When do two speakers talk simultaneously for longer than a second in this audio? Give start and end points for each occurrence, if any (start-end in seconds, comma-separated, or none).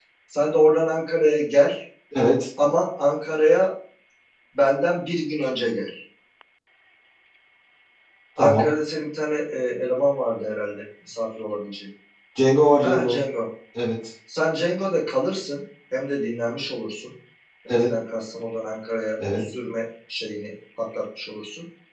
none